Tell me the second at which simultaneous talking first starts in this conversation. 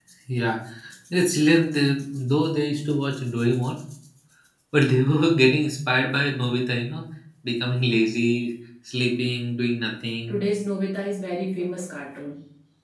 none

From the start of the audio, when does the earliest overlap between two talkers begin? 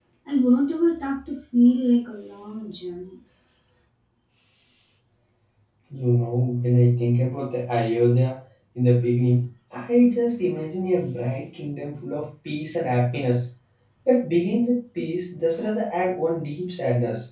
none

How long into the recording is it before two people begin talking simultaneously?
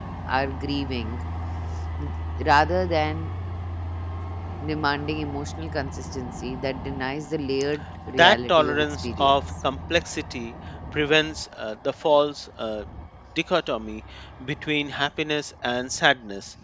8.2 s

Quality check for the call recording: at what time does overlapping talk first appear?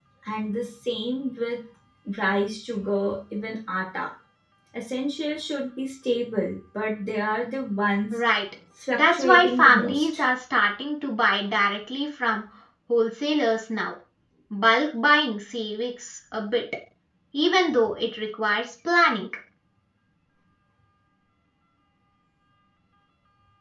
8.9 s

